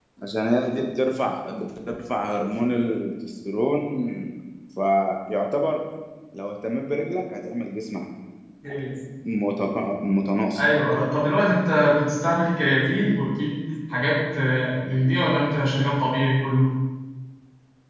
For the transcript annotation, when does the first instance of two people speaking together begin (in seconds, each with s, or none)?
none